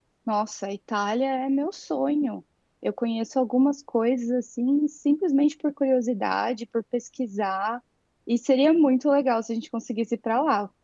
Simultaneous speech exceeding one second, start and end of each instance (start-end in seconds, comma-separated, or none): none